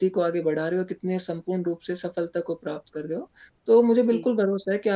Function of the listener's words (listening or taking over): listening